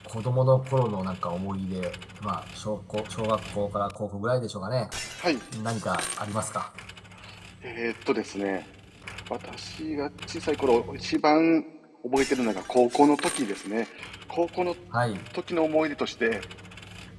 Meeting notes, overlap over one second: none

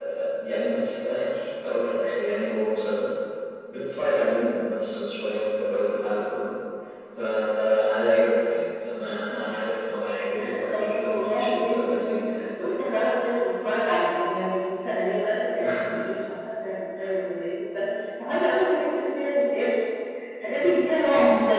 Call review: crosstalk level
present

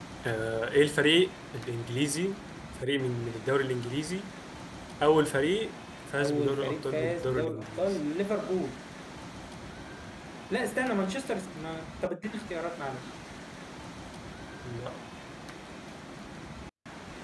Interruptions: present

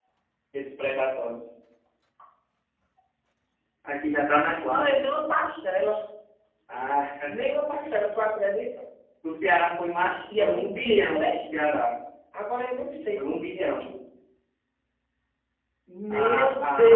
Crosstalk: present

